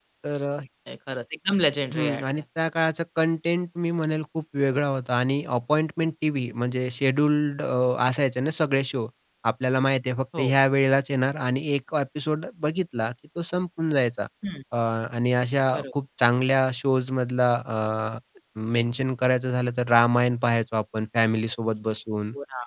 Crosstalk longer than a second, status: none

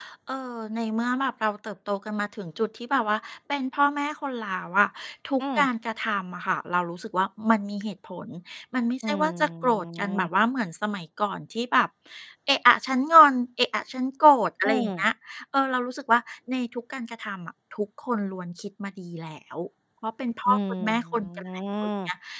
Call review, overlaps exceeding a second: present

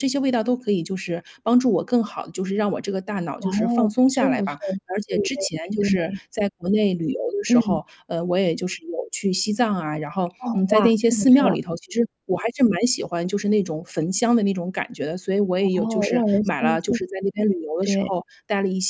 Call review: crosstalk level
present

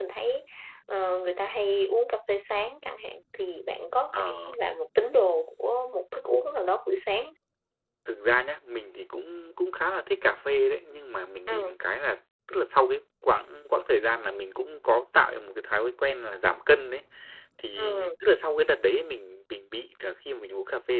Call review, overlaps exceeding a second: none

